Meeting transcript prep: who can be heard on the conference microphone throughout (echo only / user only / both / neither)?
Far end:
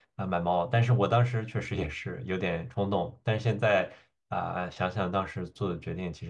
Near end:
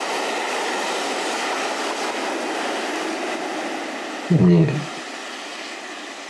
user only